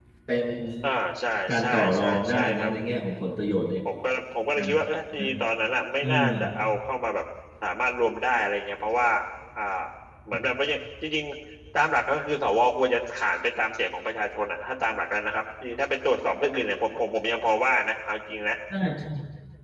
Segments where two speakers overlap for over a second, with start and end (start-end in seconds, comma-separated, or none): 1.5-2.7